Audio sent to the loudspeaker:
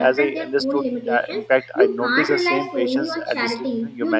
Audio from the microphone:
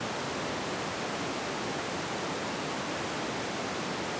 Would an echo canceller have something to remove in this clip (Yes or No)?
No